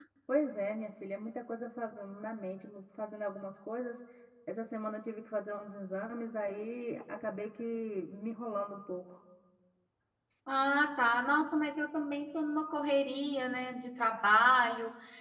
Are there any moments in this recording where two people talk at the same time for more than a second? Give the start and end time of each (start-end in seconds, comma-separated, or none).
none